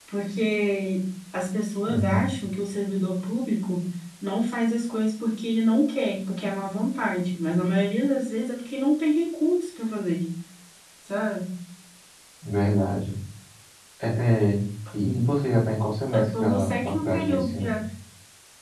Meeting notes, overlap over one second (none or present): present